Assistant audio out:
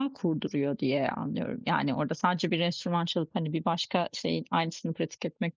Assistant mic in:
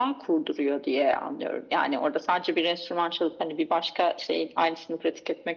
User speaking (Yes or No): No